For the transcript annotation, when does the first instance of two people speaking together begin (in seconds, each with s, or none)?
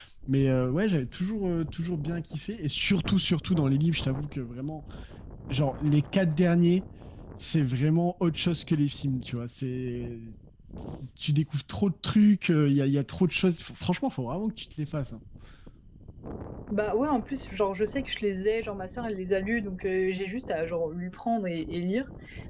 none